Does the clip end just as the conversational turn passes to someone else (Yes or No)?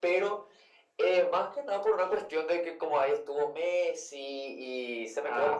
No